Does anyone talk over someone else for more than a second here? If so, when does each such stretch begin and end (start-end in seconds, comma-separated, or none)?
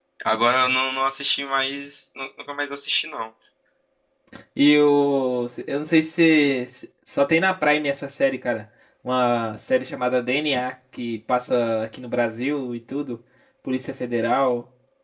none